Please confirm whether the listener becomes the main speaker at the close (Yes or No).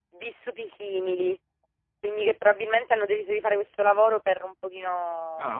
No